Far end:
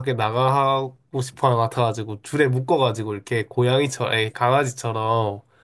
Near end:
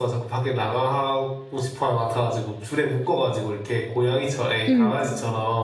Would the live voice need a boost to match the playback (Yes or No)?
No